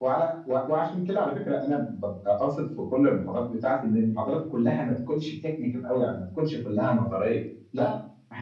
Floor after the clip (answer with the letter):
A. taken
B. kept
B